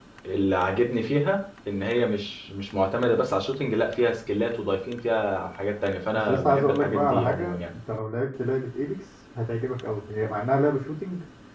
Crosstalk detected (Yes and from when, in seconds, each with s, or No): Yes, from 6.3 s